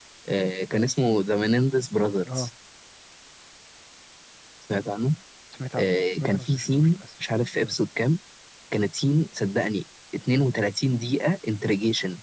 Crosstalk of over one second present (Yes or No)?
Yes